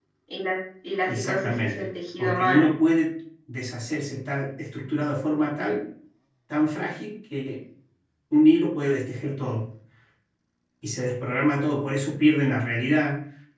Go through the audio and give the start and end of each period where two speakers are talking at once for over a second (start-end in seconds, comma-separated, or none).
1.1-2.7